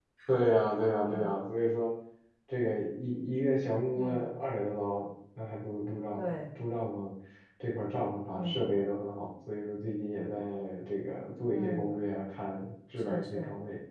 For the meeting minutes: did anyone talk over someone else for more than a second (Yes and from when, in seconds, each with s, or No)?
No